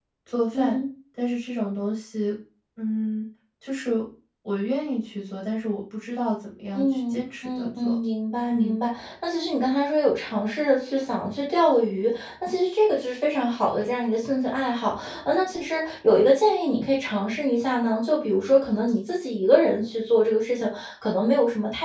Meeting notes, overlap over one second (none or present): present